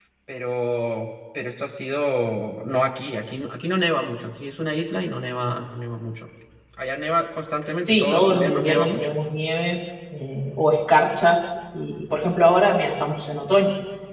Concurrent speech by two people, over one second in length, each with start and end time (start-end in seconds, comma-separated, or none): 7.9-9.2